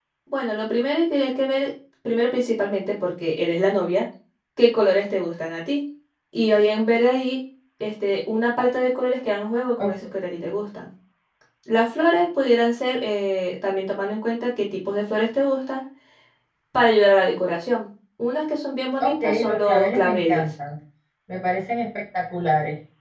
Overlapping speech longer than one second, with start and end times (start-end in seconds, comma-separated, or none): 19.0-20.4